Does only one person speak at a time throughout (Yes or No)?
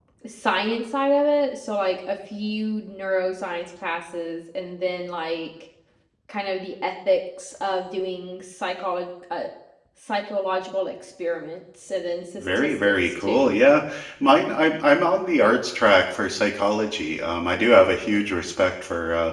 No